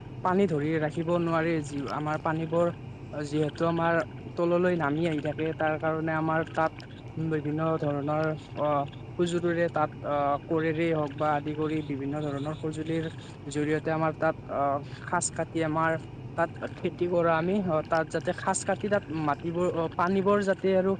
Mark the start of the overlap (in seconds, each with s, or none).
none